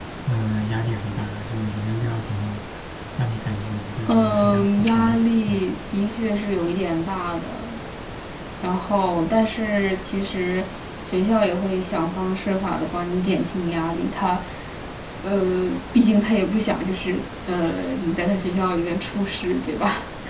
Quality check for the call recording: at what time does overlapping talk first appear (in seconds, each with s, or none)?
4.1 s